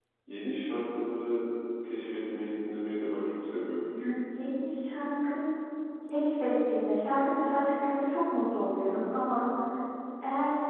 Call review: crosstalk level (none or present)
none